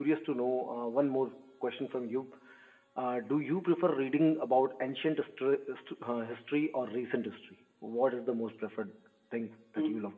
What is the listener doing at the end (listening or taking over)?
taking over